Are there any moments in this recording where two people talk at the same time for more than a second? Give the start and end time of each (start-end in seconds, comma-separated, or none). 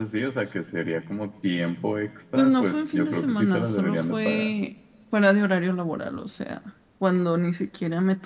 2.4-4.5